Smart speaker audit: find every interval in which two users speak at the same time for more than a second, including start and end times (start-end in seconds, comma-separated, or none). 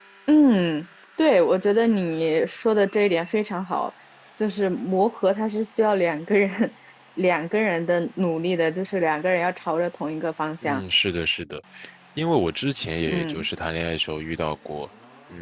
none